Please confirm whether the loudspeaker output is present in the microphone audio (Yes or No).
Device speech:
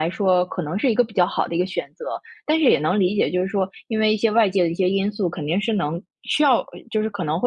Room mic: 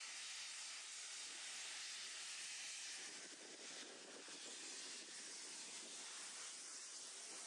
No